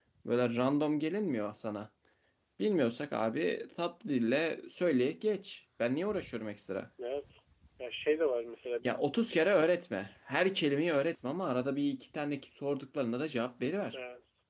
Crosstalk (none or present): none